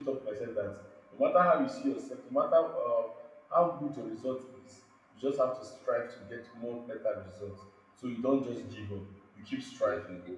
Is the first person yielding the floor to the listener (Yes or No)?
Yes